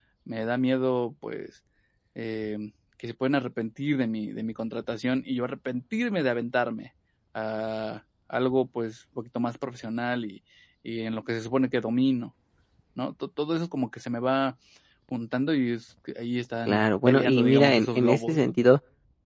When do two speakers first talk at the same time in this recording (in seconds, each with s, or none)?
16.7 s